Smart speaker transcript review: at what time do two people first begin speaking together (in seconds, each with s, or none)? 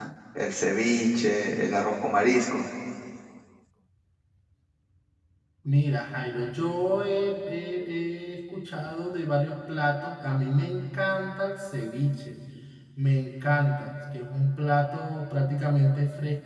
none